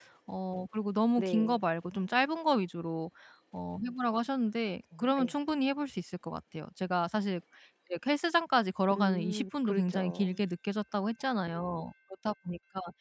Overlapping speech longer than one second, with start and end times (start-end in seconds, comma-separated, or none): 9.0-10.4